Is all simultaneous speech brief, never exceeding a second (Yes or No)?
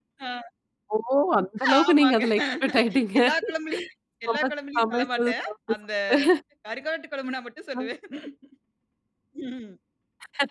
No